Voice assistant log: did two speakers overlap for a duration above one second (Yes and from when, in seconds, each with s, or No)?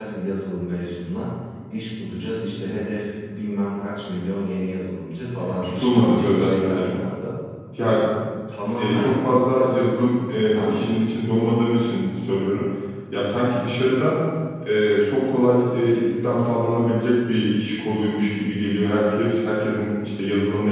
Yes, from 5.4 s